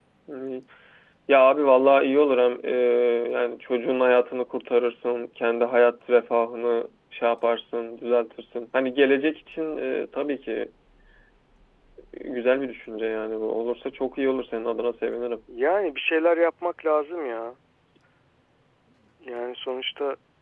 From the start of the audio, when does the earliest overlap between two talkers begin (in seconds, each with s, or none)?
none